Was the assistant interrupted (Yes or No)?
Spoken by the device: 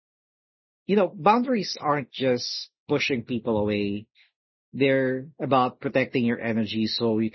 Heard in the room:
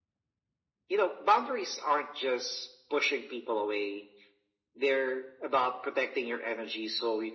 No